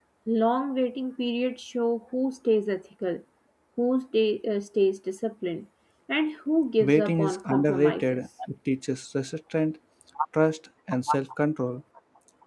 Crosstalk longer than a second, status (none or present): present